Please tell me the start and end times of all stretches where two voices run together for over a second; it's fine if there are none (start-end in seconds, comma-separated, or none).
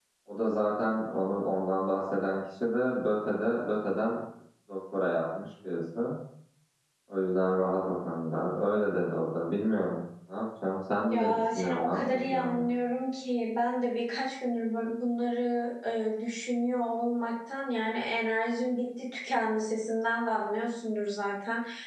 11.1-12.7